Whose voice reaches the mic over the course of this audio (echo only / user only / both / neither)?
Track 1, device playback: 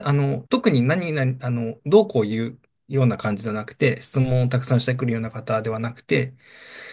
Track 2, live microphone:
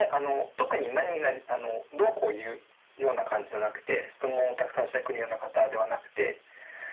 echo only